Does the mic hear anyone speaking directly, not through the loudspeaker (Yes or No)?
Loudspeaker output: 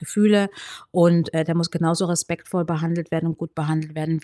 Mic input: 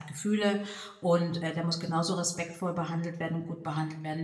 No